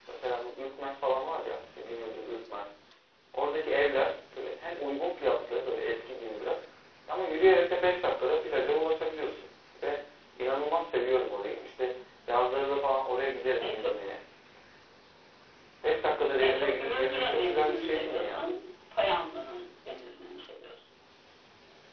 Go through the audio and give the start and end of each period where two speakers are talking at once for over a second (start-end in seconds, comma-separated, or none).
16.4-18.5